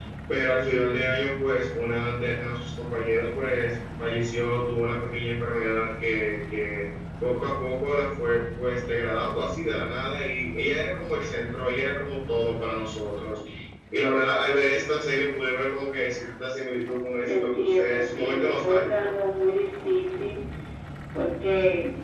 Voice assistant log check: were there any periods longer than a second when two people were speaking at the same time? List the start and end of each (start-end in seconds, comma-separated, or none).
17.3-18.9